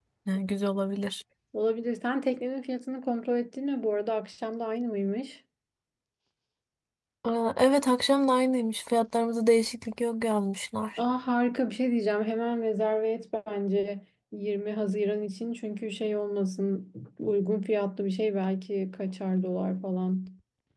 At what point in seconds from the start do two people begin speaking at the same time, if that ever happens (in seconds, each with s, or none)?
none